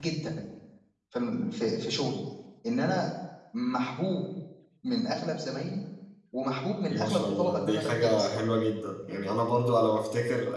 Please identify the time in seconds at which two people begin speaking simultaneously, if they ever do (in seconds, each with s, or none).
6.9 s